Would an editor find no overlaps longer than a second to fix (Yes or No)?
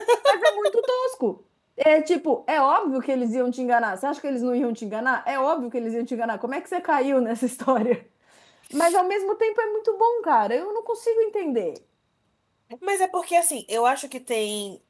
Yes